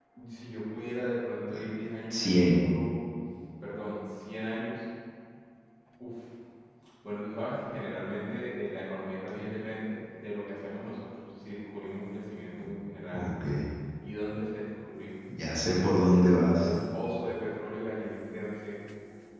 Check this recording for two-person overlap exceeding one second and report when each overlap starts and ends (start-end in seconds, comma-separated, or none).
none